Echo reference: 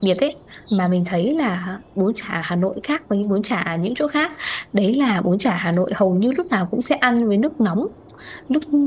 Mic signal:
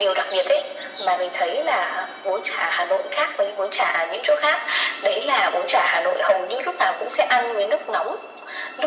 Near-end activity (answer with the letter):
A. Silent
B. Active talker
A